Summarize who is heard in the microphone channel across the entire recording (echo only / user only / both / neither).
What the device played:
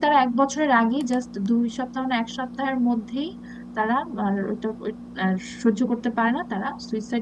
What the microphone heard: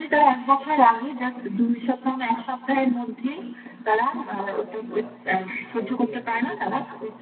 both